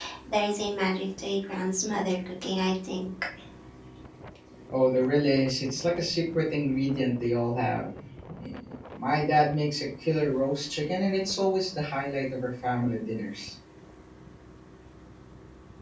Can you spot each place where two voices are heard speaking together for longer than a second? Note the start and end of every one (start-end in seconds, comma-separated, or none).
none